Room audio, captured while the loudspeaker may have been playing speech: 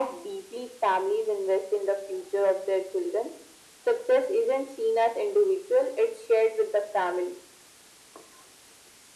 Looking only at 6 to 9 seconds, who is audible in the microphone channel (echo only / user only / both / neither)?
echo only